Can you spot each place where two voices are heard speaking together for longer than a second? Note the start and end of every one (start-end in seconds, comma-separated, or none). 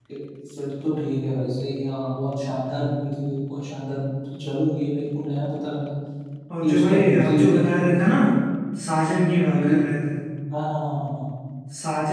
6.6-8.2